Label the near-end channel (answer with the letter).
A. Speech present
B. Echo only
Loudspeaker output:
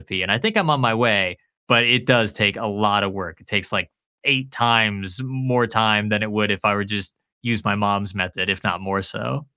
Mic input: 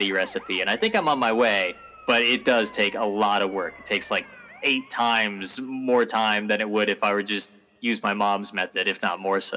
B